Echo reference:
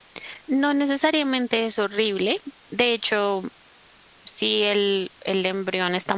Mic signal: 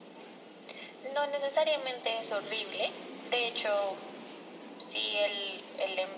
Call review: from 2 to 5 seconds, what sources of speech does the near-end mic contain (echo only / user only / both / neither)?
echo only